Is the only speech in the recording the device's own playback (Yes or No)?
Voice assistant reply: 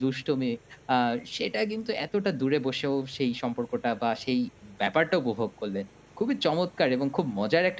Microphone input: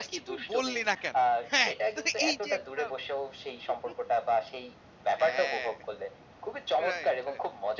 No